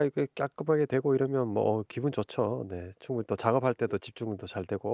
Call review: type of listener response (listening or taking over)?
listening